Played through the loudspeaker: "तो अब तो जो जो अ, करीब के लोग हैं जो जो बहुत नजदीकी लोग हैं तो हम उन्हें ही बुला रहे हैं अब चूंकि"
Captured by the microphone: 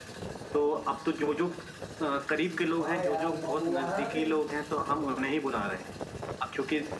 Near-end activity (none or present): present